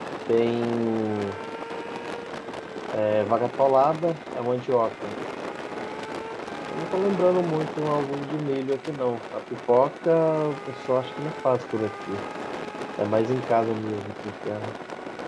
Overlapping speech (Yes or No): No